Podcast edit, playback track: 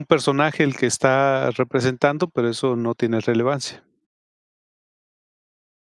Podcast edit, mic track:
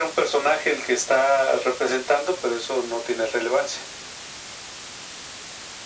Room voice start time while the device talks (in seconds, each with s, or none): none